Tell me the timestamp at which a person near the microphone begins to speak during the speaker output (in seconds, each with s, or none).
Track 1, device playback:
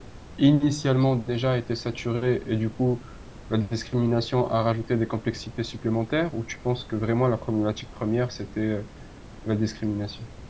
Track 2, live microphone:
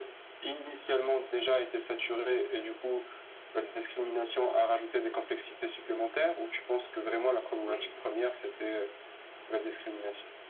7.6 s